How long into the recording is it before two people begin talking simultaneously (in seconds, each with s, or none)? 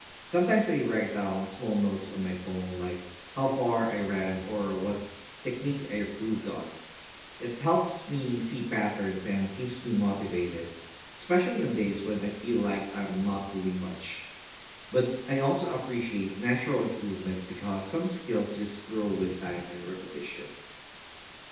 none